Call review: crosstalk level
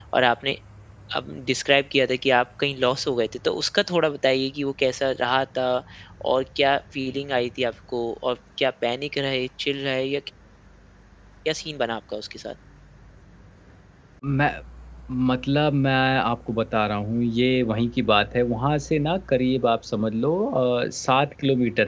none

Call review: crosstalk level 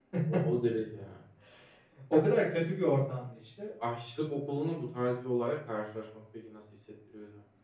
none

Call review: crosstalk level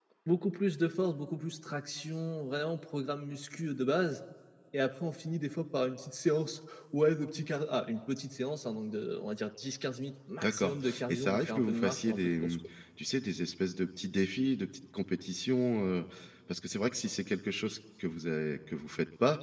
present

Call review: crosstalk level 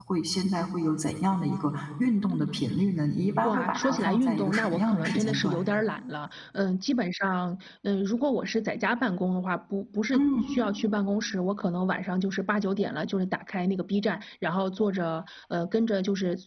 present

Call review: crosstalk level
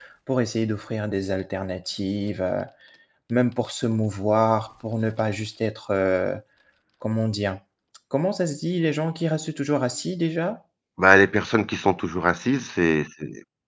none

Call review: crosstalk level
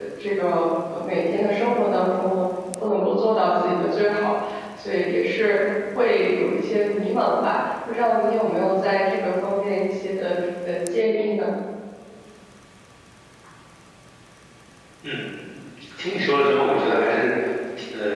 none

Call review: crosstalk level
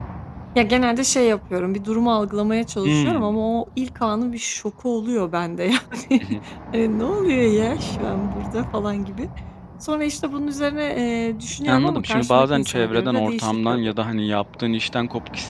present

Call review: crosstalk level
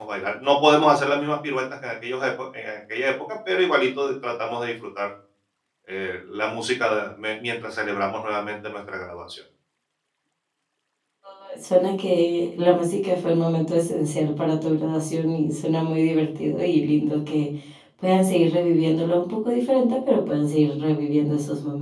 none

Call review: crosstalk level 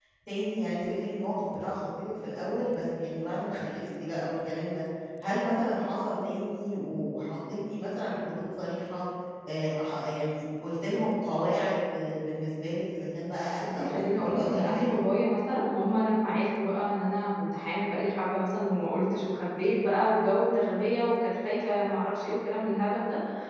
present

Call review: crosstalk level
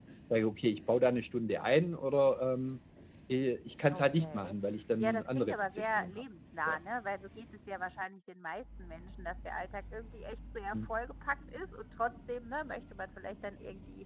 present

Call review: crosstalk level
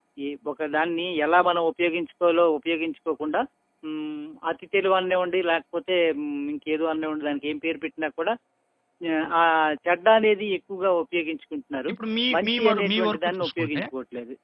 present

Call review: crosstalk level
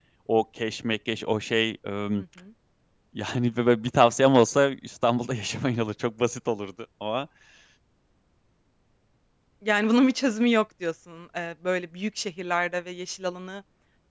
none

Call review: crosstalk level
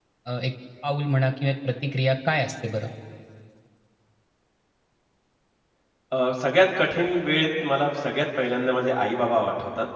none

